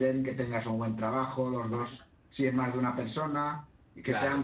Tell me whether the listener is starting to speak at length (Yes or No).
No